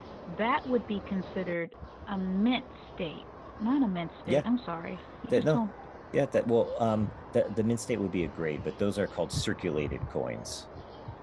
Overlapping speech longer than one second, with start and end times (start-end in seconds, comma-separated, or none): none